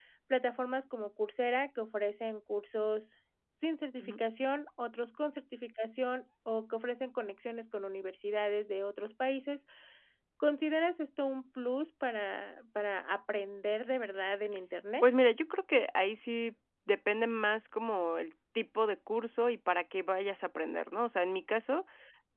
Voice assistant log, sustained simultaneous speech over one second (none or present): none